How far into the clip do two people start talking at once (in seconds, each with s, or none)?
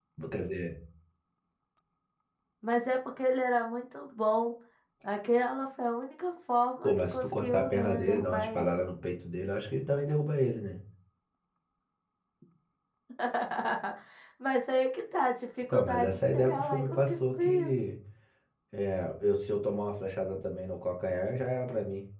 6.8 s